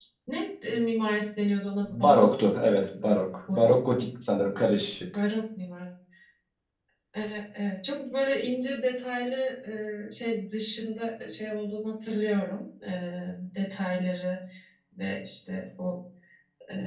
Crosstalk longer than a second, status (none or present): present